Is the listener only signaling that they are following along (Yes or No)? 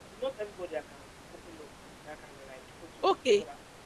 No